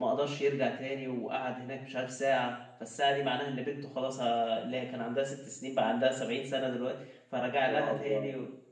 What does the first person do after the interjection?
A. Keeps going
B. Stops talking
A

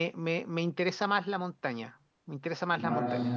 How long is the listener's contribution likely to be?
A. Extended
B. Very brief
A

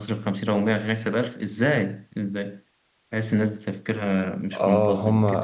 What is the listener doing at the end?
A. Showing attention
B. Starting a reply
B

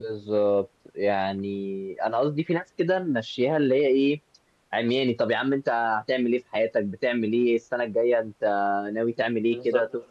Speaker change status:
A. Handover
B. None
B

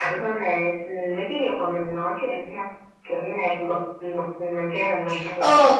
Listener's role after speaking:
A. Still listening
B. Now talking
B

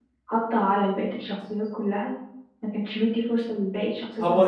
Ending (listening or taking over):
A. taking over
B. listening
A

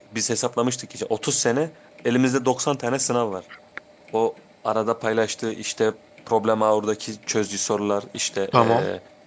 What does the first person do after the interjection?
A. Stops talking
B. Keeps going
B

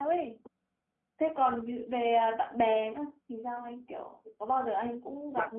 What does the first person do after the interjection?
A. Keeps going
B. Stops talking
B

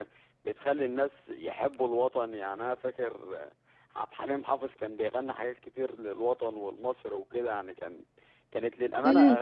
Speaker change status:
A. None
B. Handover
B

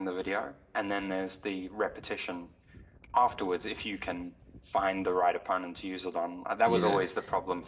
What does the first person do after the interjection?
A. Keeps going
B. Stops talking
A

